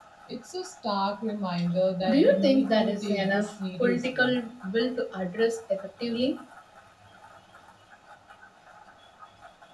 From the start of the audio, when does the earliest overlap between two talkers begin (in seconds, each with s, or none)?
2.1 s